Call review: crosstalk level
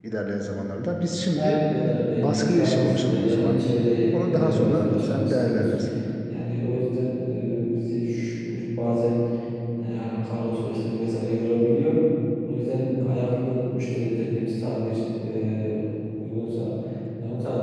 present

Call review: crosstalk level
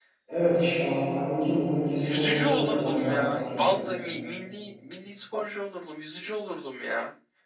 present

